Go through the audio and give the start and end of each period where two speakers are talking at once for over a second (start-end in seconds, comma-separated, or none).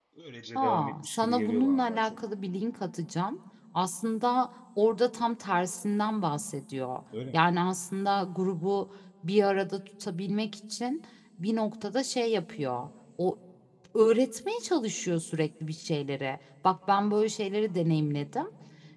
0.6-2.2